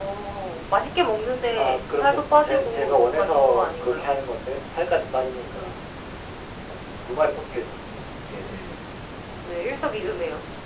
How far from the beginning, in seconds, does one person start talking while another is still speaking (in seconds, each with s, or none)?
1.6 s